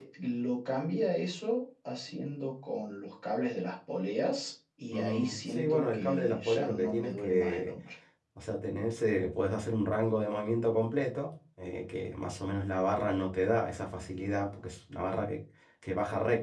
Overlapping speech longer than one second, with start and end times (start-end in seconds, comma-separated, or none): 4.9-7.7